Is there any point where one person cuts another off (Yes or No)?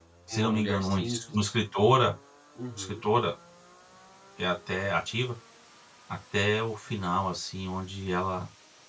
Yes